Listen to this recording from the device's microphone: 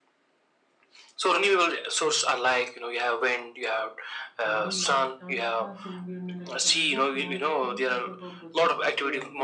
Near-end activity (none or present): present